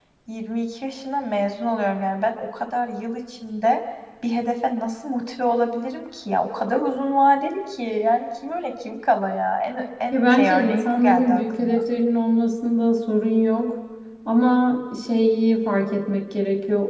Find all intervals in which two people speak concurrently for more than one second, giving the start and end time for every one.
10.1-11.8

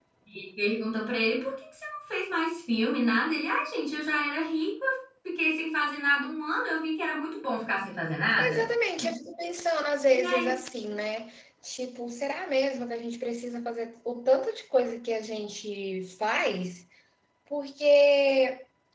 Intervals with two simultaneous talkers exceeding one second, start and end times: none

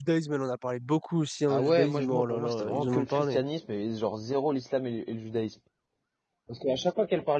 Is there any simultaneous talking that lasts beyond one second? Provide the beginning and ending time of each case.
1.5-3.4

